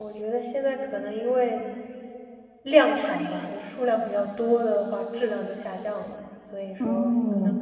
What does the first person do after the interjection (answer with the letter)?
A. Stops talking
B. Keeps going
A